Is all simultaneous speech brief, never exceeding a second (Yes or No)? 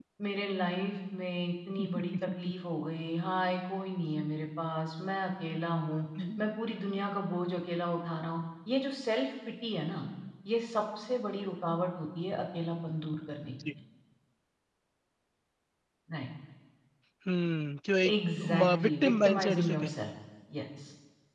No